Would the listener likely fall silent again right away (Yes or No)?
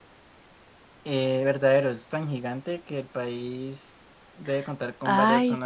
No